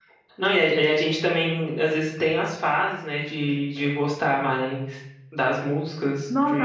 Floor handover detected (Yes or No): Yes